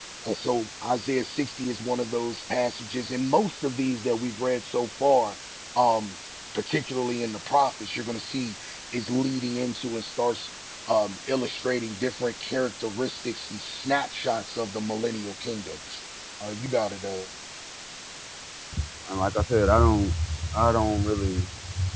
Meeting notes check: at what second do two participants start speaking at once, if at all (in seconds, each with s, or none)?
none